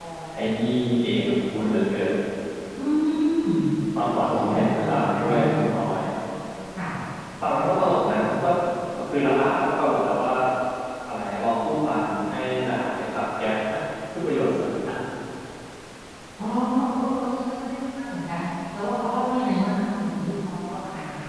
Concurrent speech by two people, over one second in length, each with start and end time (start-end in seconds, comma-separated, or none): 4.1-5.6